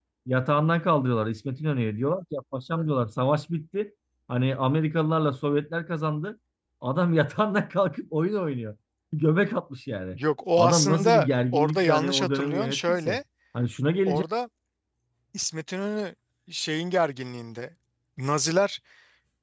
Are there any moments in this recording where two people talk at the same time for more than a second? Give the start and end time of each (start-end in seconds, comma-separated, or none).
10.6-13.2